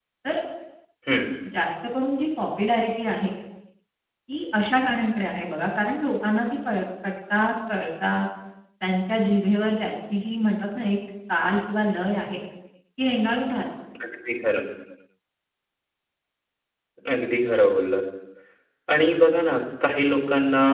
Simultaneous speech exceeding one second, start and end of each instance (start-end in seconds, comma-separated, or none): none